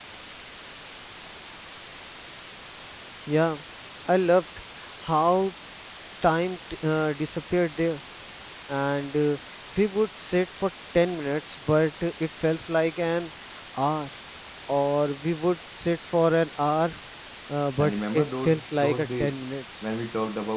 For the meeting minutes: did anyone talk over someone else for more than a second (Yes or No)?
Yes